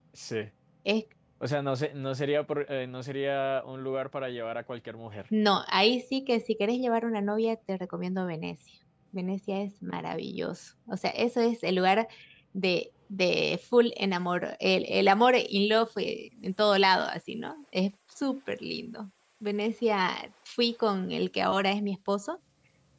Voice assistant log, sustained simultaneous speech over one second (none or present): none